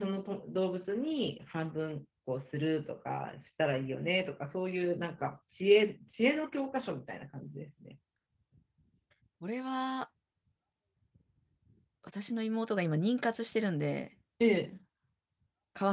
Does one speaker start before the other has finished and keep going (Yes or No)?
No